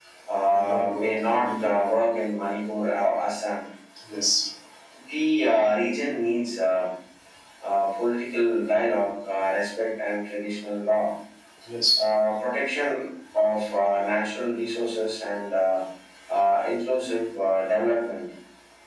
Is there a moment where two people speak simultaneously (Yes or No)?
Yes